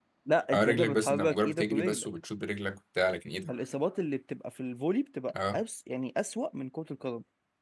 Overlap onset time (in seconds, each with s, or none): 0.5 s